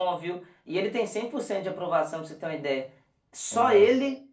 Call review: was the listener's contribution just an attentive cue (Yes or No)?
Yes